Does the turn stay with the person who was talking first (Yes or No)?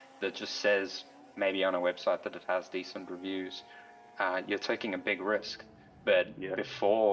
Yes